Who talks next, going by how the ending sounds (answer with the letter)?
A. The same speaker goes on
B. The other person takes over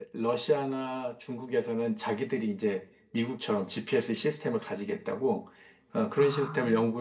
A